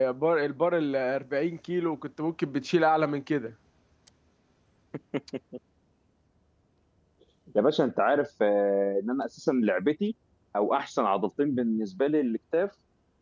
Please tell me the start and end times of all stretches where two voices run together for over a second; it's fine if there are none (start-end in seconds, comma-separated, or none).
none